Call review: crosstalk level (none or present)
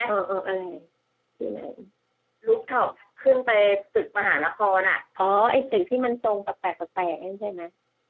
none